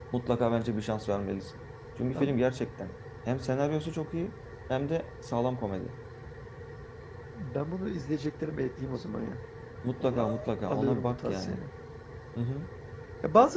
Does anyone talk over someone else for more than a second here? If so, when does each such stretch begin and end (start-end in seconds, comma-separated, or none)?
10.0-11.6